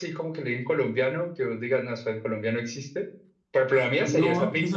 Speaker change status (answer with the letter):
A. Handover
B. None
A